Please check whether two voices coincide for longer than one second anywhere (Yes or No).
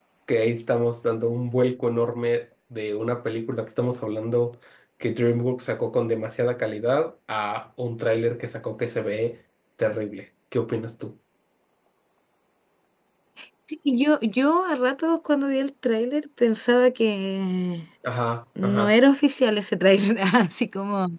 No